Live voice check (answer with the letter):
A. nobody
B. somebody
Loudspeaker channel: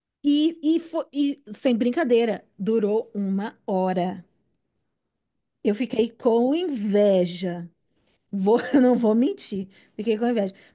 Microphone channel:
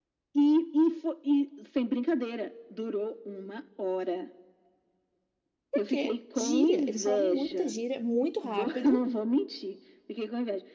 B